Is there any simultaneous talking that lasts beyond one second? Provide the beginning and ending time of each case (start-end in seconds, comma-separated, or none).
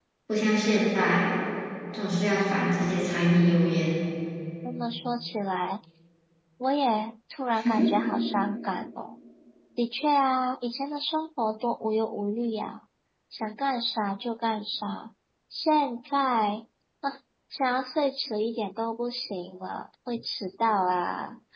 none